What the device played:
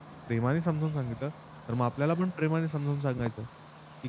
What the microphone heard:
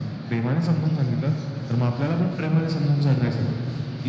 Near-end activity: none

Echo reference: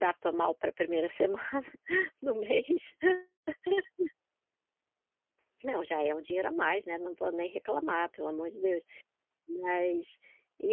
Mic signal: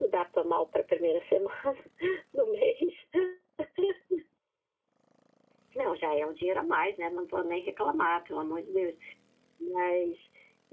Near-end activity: none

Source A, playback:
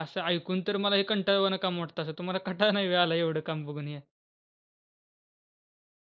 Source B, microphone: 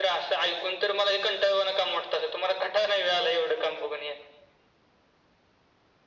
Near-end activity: none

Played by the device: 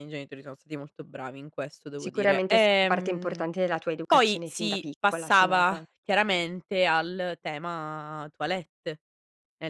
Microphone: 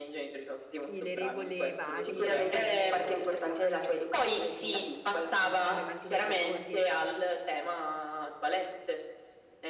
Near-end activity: present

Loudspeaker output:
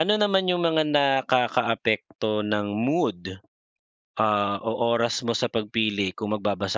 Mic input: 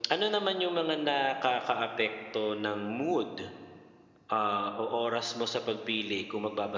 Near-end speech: none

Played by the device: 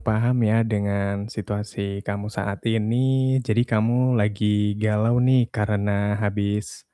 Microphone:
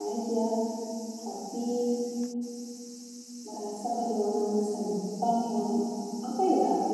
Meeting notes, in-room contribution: present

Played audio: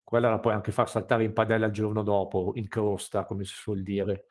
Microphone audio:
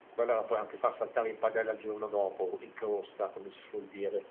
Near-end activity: none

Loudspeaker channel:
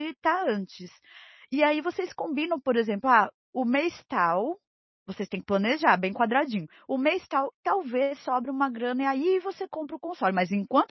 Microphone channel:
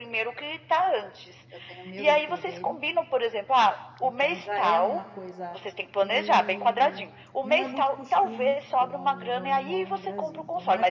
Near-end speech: present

